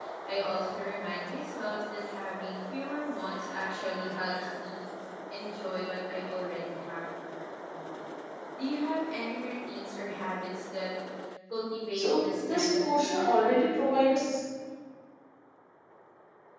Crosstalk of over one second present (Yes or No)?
Yes